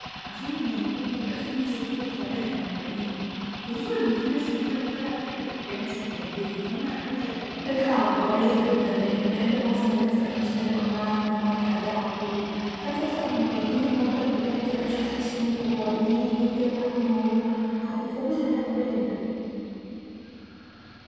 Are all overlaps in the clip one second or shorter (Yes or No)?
No